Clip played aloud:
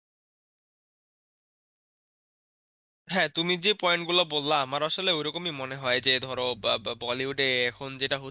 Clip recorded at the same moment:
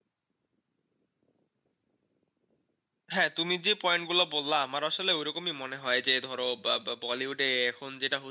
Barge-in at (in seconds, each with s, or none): none